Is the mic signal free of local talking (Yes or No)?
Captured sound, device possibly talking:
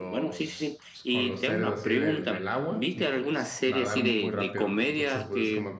No